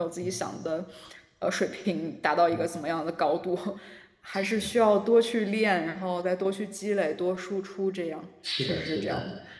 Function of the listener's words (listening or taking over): taking over